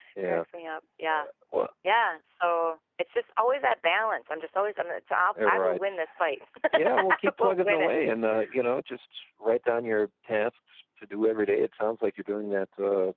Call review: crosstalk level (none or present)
present